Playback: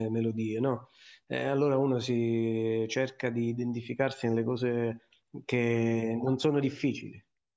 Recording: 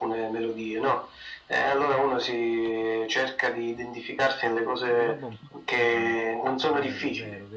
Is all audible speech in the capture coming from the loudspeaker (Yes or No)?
No